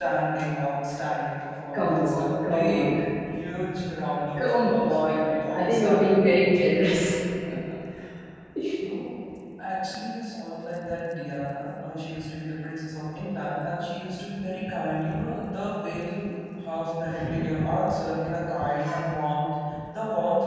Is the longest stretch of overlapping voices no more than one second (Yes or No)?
No